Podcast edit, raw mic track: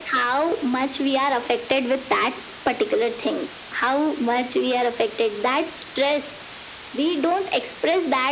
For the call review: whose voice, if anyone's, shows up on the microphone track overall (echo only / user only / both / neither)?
echo only